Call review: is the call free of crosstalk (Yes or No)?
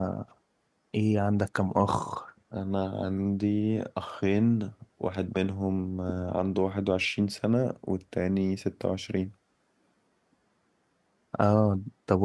Yes